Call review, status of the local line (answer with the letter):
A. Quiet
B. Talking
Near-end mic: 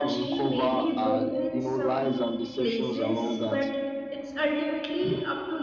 B